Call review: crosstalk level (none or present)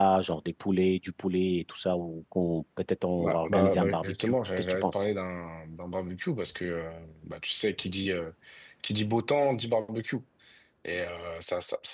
present